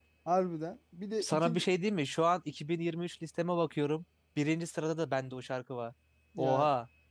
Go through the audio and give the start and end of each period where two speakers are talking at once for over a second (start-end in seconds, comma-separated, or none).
none